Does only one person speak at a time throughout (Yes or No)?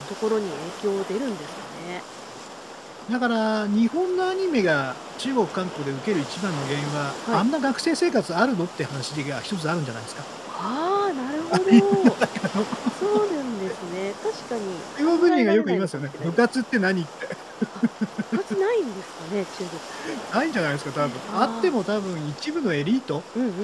No